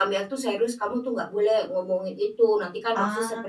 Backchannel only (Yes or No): Yes